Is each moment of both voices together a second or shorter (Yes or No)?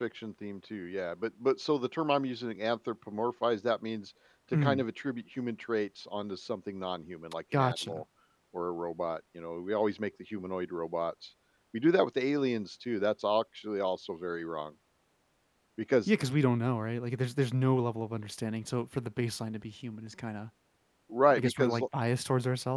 Yes